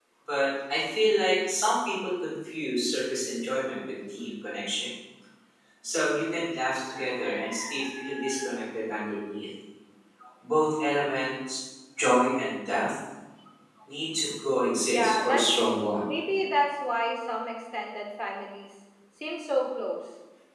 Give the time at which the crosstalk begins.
14.9 s

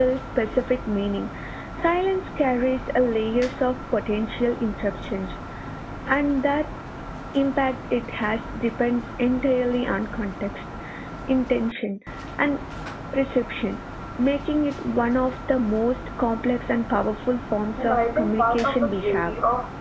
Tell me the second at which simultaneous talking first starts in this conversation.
17.8 s

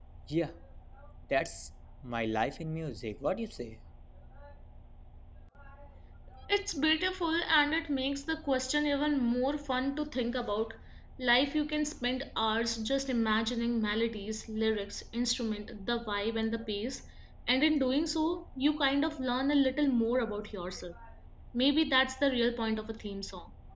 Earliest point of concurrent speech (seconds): none

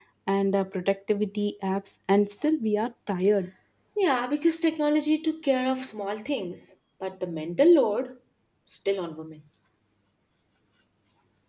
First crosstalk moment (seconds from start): none

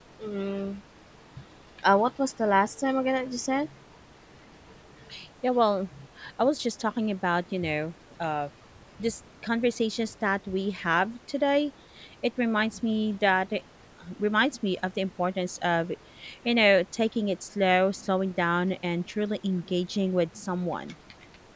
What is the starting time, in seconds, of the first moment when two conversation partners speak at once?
none

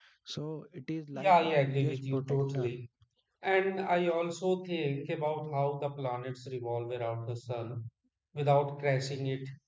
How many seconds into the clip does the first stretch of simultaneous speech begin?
1.1 s

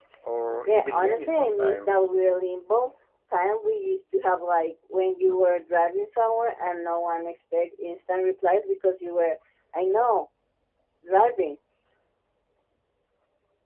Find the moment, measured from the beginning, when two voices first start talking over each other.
0.7 s

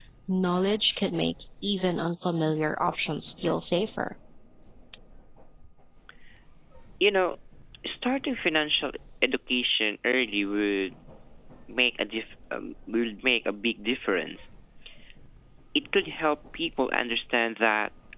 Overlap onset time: none

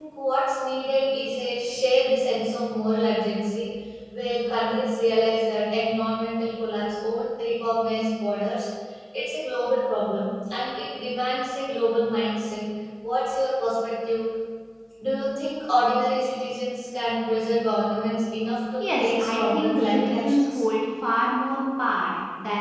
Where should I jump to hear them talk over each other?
18.8 s

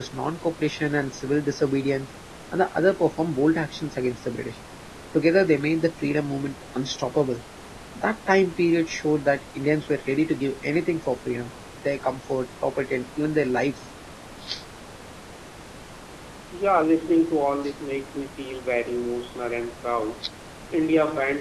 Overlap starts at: none

